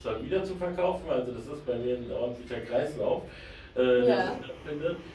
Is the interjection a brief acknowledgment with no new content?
Yes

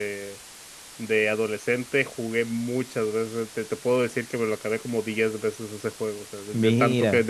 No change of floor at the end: Yes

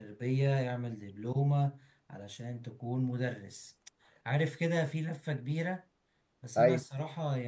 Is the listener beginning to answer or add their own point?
No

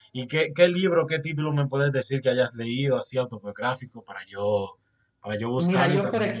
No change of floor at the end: No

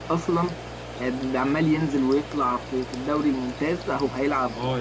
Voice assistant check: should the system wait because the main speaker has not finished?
No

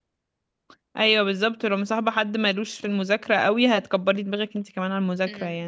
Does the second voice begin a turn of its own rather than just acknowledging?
Yes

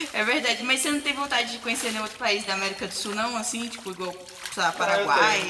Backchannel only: No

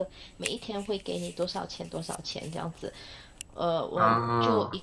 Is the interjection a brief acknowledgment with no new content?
Yes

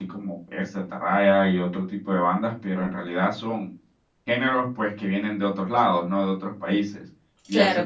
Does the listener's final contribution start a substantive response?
No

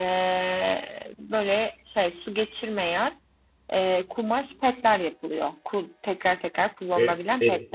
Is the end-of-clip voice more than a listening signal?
Yes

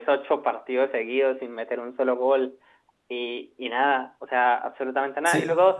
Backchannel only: No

